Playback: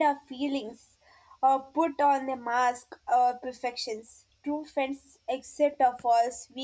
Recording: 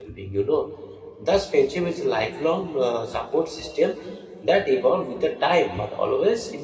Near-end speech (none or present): present